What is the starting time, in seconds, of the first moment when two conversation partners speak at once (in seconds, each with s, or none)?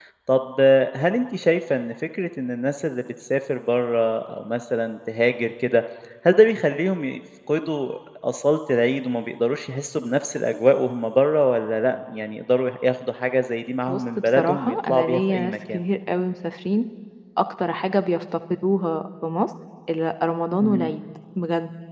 13.9 s